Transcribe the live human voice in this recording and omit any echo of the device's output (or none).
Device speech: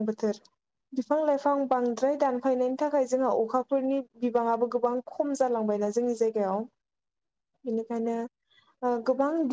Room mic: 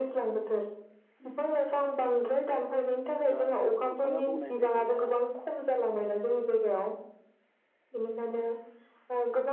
दा नोंथाङा बुंनाय बायदिनो